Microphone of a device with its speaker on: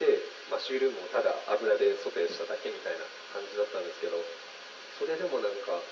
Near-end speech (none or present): none